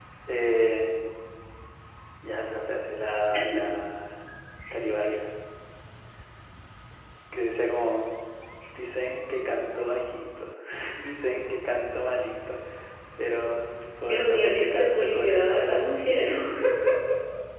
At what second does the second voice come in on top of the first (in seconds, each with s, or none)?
14.1 s